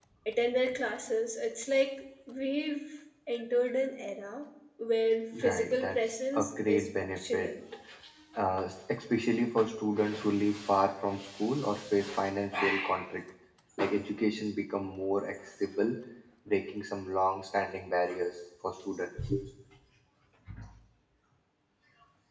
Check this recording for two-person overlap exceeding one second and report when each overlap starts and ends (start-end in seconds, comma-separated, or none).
5.5-7.5